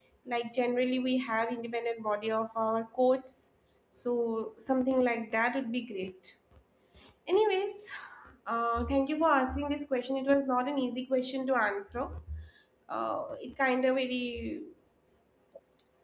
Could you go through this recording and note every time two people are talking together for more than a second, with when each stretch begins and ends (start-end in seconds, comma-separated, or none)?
none